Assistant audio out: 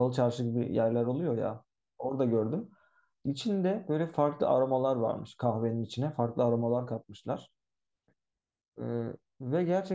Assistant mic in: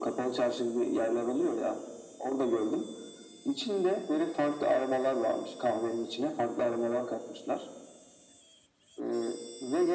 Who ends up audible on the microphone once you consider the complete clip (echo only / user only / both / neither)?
echo only